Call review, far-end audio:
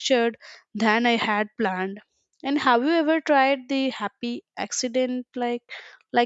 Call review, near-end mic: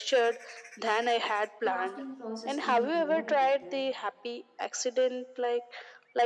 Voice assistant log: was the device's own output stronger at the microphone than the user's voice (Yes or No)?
Yes